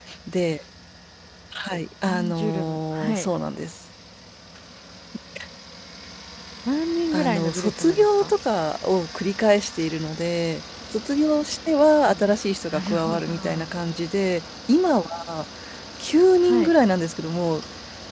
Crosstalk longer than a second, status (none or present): present